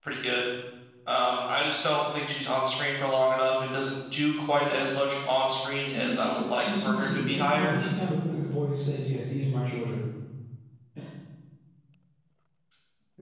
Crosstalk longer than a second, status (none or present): present